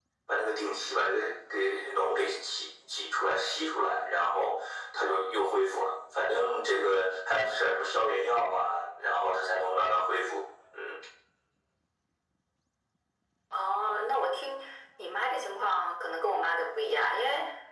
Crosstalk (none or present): none